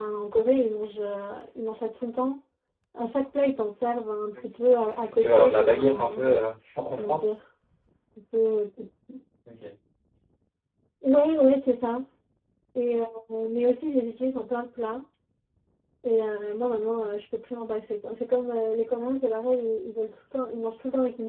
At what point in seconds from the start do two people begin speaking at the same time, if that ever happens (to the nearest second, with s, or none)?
5 s